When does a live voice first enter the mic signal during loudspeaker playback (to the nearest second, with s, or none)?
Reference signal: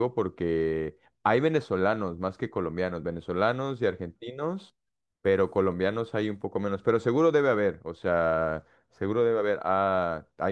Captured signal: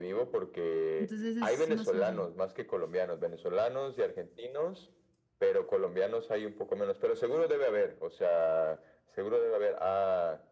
1 s